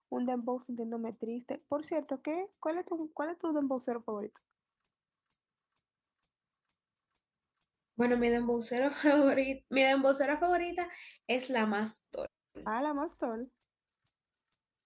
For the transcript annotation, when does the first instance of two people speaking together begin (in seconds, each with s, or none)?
none